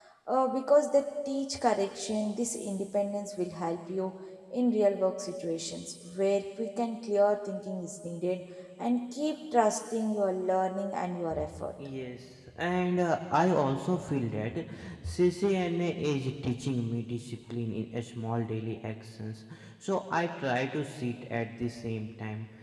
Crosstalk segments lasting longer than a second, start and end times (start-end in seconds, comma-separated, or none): none